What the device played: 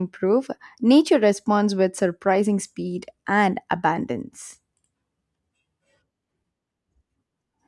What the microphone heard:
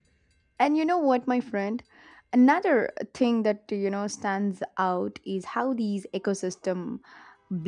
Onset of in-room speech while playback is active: 1 s

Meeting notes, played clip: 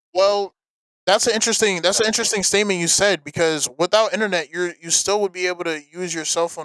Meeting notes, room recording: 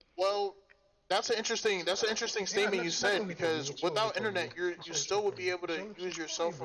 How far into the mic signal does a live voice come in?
2 s

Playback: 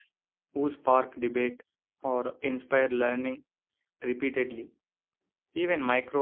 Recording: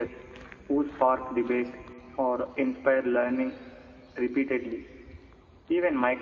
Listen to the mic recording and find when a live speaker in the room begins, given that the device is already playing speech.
none

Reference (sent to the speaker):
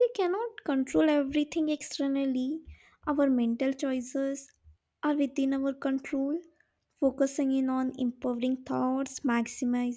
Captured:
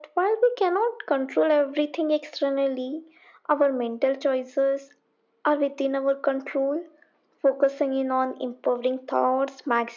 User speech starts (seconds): none

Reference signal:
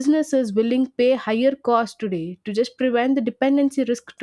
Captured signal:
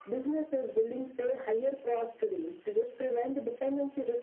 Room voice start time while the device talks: none

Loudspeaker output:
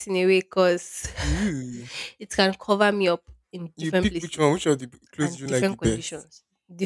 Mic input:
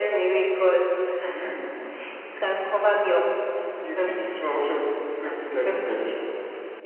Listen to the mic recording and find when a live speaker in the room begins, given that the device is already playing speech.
none

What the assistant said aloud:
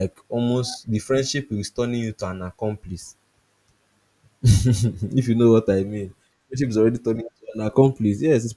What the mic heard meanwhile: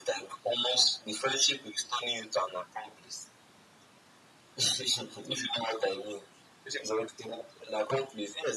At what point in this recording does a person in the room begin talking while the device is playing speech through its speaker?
none

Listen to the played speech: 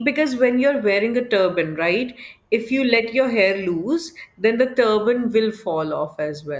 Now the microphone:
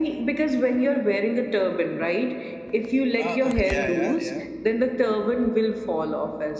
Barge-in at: 3 s

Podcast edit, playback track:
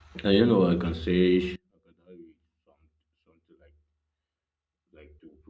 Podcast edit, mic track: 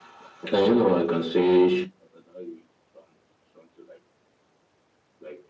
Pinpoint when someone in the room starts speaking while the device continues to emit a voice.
none

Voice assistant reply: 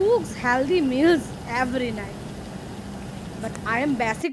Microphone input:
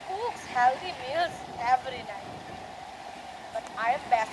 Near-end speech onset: none

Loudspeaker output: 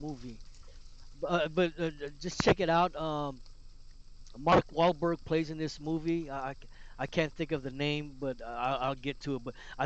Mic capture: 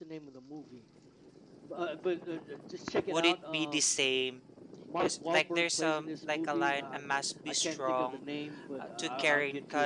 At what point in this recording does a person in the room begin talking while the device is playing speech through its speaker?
3 s

